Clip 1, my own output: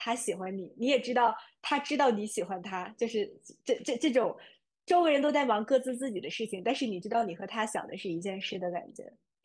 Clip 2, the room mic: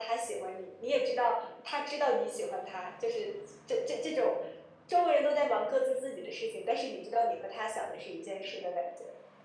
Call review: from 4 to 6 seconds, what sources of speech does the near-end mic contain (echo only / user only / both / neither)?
echo only